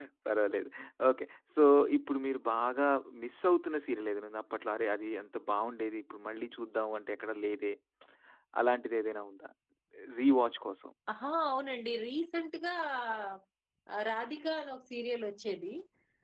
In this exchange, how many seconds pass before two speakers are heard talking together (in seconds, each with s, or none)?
none